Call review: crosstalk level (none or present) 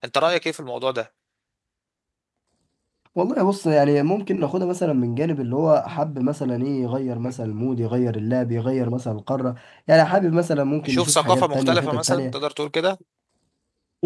present